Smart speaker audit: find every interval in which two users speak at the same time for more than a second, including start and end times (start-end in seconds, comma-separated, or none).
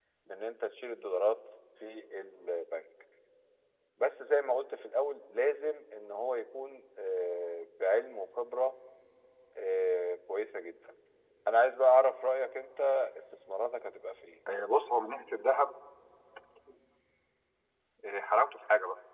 none